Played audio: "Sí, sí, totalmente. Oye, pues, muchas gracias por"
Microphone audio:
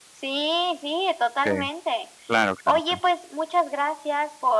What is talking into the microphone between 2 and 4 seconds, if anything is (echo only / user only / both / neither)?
both